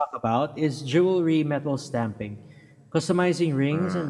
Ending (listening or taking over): listening